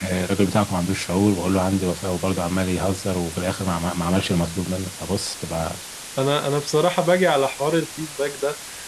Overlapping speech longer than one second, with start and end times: none

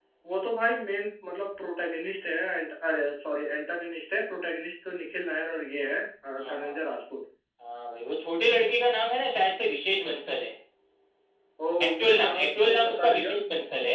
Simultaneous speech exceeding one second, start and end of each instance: 11.8-13.3

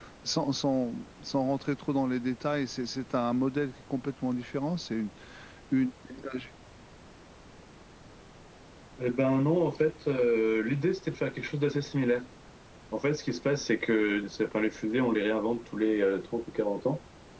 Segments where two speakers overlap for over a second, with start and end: none

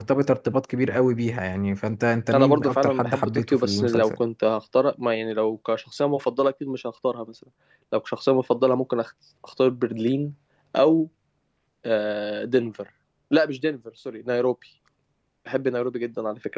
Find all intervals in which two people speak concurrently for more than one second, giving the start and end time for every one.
2.3-4.1

